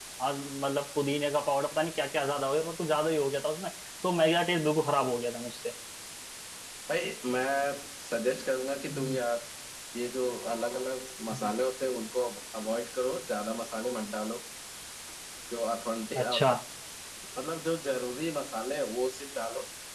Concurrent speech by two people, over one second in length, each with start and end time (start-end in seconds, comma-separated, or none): none